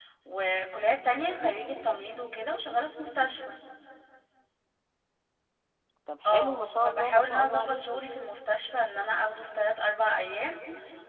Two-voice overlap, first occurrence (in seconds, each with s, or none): 6.2 s